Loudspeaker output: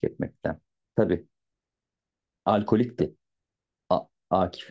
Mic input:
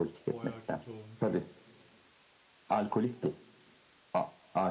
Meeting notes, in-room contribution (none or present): present